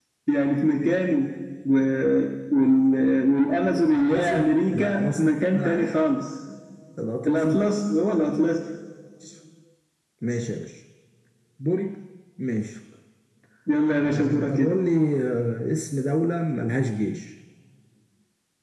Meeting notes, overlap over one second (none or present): present